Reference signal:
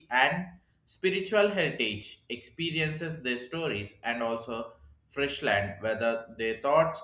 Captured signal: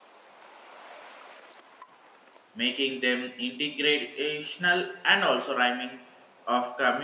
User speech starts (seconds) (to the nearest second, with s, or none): 3 s